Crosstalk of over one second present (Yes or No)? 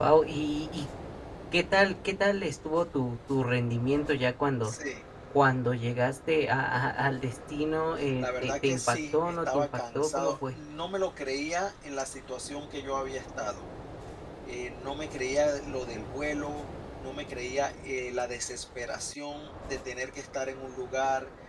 Yes